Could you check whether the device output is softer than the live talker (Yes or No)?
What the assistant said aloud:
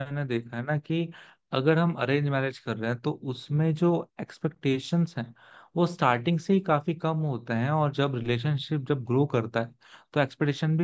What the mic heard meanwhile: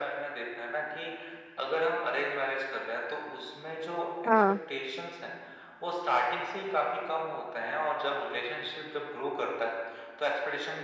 Yes